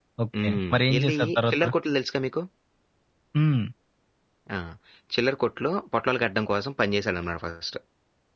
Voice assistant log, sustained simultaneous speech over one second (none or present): present